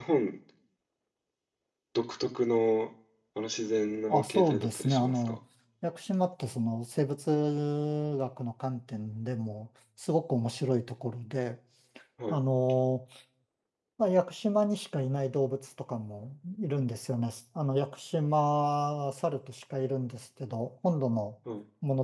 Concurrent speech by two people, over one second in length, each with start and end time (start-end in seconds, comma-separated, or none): 4.1-5.4